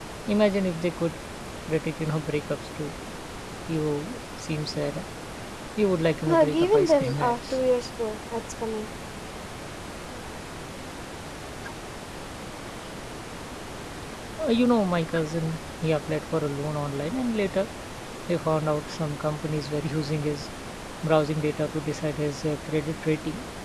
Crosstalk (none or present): present